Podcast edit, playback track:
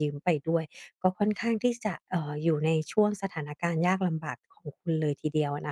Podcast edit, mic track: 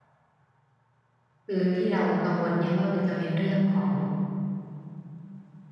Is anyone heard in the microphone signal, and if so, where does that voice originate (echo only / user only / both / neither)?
user only